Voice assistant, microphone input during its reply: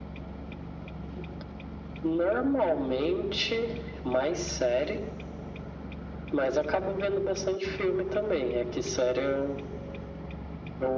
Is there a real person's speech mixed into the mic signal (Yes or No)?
No